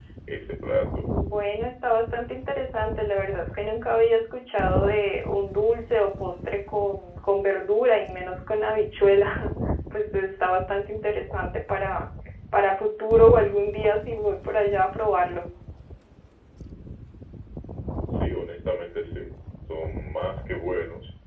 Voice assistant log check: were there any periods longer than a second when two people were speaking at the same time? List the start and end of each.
none

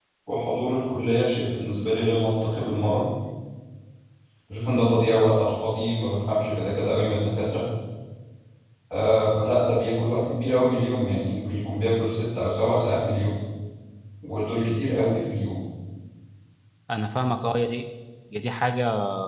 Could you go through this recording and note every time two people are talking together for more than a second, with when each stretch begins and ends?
none

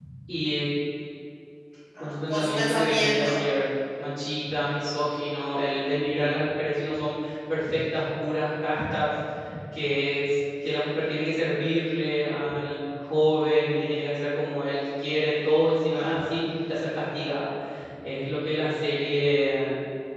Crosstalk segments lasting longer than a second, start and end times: 2.0-3.3

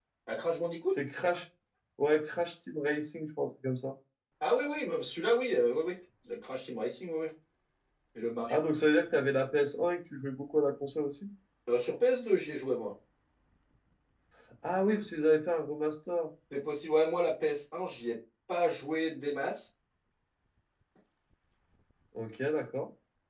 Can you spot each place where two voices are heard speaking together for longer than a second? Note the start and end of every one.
none

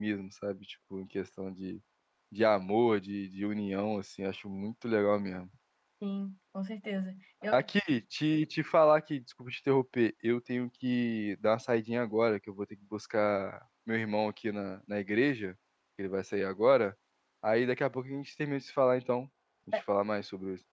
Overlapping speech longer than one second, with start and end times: none

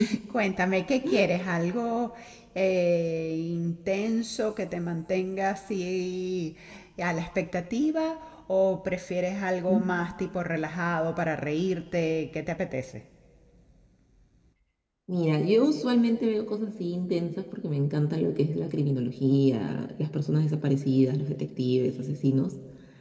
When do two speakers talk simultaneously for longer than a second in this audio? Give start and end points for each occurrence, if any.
none

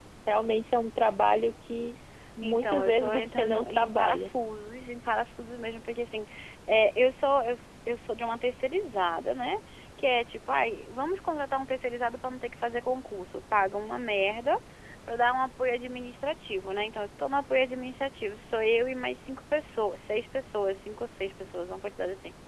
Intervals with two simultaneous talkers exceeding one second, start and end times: 2.4-4.3

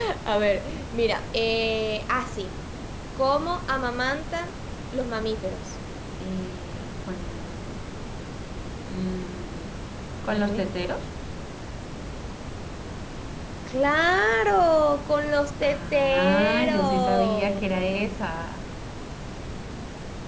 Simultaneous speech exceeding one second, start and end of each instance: 15.6-17.6

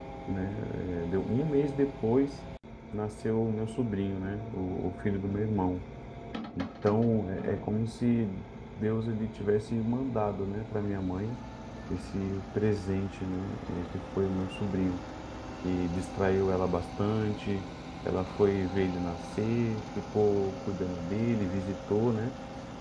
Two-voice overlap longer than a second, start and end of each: none

